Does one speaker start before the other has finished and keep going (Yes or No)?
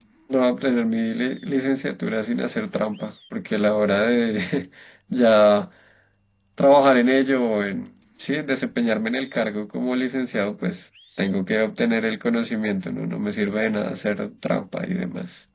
No